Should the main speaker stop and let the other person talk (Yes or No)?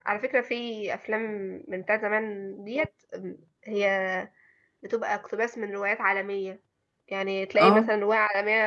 No